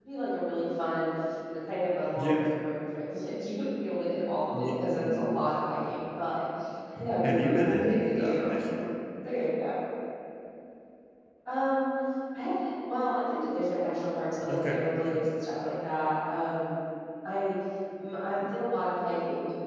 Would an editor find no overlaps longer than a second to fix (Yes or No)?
No